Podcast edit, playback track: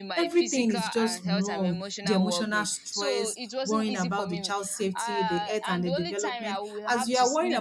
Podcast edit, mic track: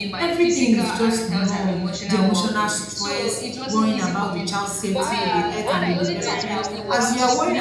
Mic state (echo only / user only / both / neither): both